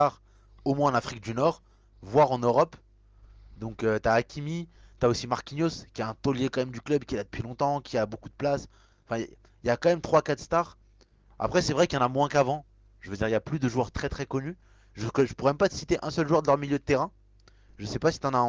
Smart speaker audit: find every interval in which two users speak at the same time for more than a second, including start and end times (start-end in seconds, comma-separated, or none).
none